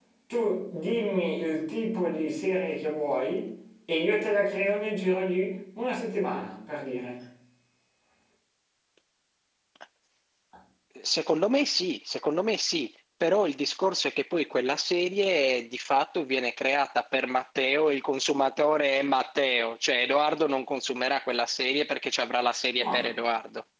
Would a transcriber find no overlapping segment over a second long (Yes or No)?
Yes